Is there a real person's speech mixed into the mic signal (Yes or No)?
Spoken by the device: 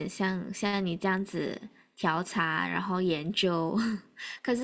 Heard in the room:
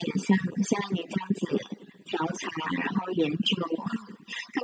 No